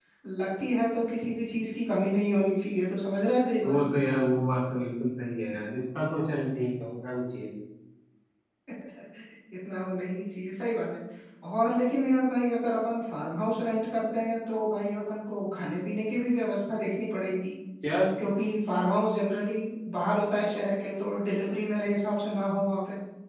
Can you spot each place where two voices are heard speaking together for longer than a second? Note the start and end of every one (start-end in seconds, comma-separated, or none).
none